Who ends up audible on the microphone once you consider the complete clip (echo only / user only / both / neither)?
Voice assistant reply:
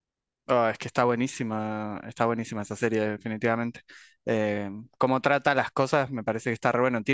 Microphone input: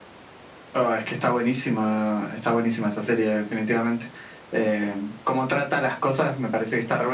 echo only